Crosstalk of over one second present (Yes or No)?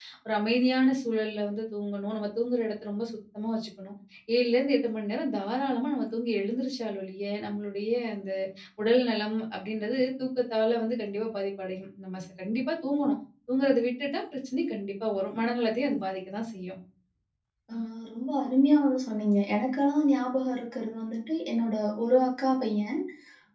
No